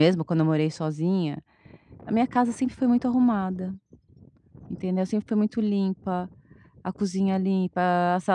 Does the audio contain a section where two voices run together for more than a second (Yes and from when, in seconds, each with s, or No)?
No